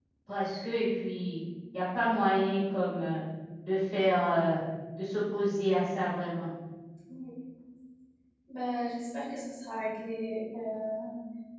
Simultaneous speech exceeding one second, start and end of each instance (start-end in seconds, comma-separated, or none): none